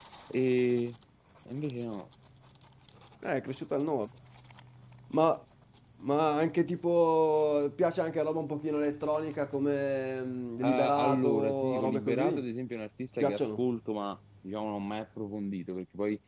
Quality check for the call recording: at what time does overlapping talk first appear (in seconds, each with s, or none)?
10.6 s